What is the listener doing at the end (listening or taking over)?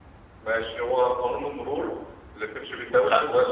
listening